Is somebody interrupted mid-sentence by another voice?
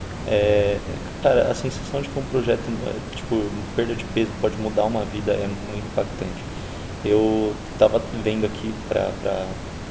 No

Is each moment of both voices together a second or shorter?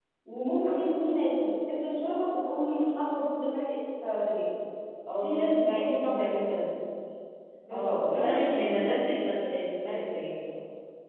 No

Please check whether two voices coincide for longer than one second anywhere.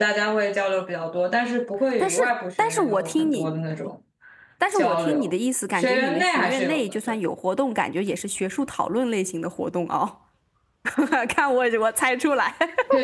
Yes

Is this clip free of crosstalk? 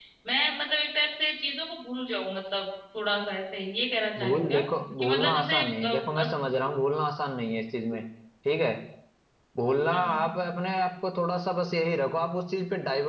No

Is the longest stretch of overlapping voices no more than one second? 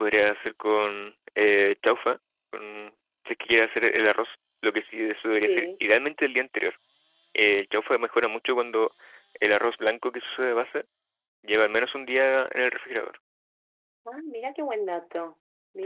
Yes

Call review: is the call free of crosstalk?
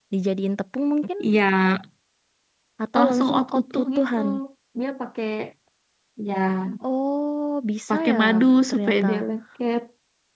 No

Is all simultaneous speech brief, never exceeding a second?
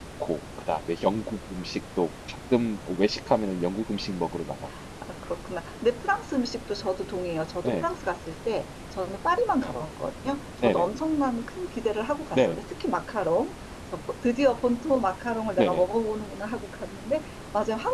Yes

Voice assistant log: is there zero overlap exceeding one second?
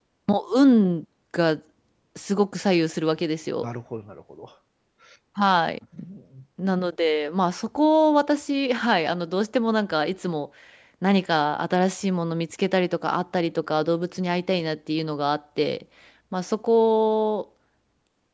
Yes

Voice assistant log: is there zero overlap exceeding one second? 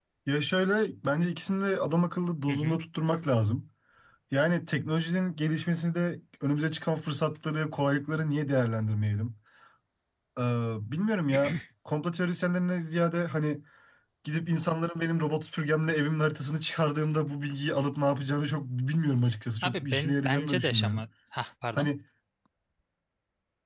No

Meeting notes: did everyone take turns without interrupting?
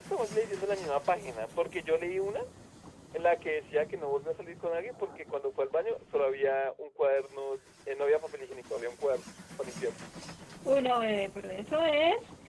Yes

